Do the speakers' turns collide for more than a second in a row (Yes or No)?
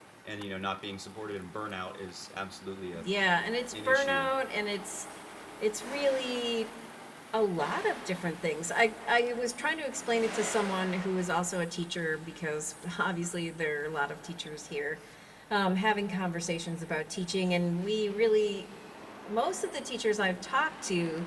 No